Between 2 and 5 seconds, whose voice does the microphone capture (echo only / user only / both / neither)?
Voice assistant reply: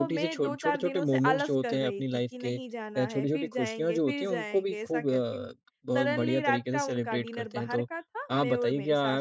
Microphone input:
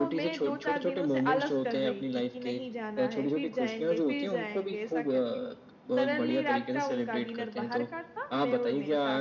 echo only